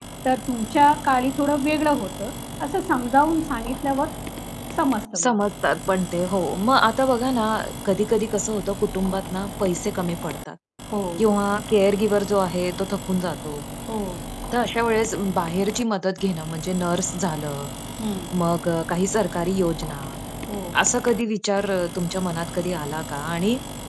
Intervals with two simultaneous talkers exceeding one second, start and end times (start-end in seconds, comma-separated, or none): none